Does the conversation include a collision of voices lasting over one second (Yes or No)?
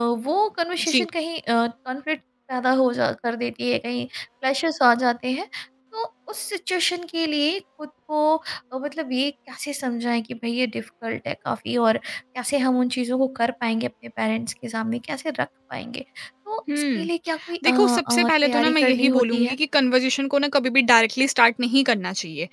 Yes